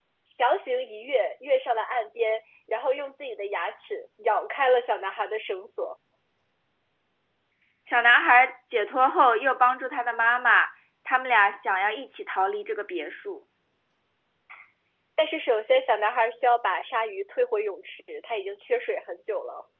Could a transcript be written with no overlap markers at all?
Yes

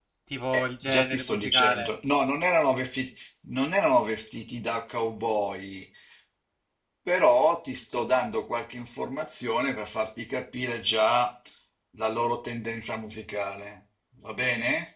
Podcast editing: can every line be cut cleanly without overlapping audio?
No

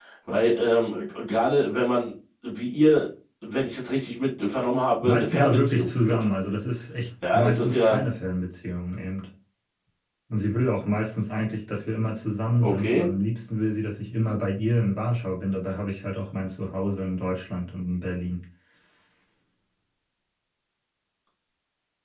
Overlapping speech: Yes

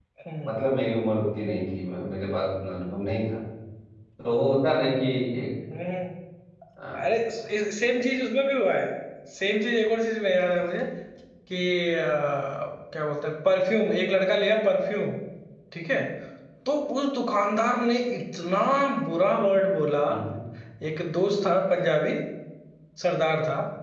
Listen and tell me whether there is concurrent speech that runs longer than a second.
No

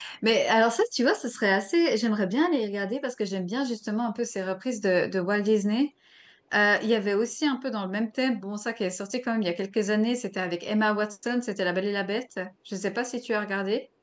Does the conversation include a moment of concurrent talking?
No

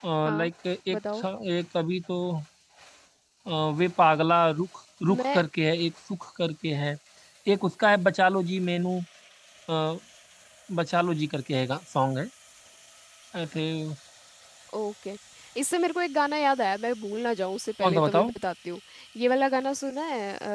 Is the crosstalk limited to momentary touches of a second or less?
Yes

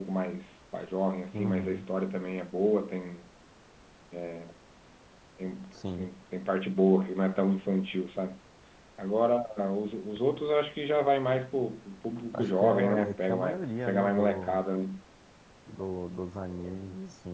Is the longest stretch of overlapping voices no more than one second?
No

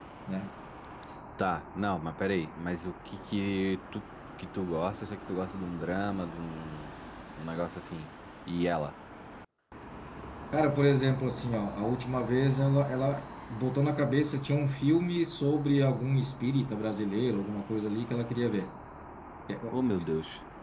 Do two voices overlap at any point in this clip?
No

